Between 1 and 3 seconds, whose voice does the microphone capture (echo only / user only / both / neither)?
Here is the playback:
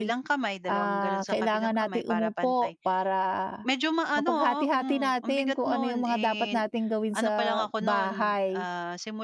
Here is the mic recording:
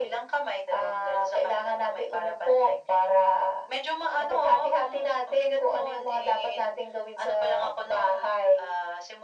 echo only